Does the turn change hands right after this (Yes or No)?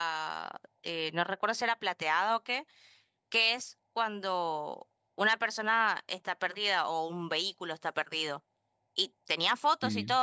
No